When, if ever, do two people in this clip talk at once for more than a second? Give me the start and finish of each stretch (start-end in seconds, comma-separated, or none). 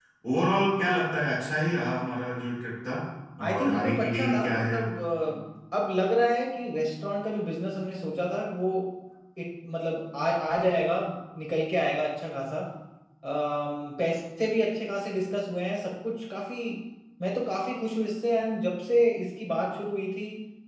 3.5-4.9